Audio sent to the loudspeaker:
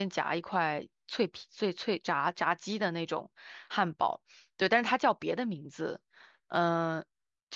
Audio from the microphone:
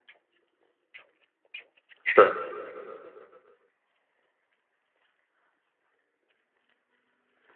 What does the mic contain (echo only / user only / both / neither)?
user only